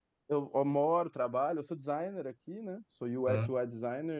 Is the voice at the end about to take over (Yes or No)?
No